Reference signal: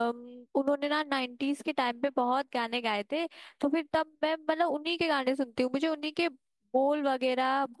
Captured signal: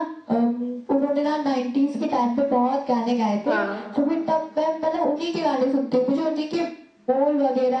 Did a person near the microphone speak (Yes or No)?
Yes